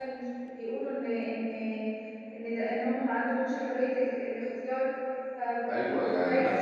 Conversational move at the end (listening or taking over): taking over